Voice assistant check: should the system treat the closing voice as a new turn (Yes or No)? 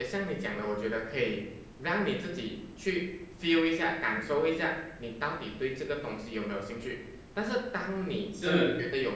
No